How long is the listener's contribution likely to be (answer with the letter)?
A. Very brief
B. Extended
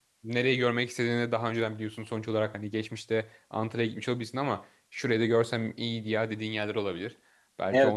B